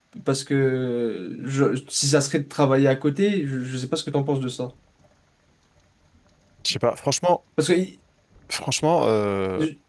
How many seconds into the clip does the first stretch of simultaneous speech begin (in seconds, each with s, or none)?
none